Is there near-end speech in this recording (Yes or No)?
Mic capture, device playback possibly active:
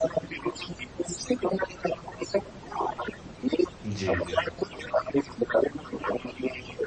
Yes